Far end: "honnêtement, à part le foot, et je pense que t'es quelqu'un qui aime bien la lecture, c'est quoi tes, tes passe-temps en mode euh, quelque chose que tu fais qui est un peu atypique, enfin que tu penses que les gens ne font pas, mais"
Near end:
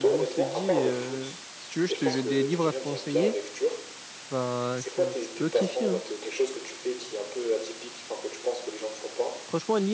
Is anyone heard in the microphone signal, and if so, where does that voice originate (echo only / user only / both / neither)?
both